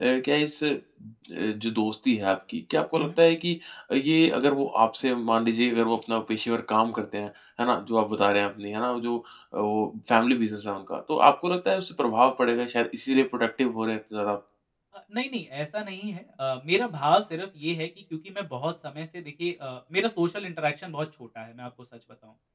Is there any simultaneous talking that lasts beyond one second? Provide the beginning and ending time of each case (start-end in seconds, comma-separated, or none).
none